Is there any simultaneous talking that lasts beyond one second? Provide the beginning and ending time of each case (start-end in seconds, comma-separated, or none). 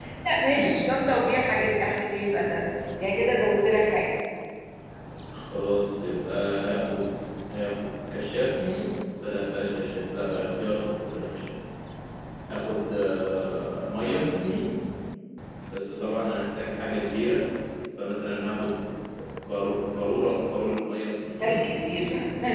none